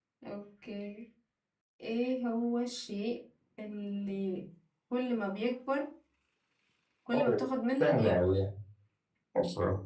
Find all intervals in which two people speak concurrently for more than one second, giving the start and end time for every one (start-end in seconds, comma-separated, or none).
7.1-8.3